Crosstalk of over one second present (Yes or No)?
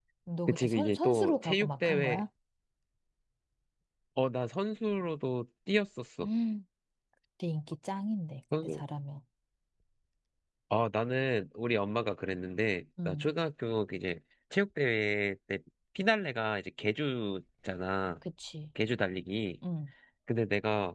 Yes